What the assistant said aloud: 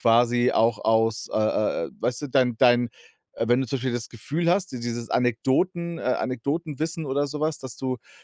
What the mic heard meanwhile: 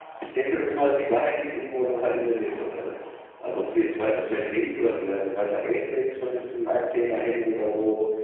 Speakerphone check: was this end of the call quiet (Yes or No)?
No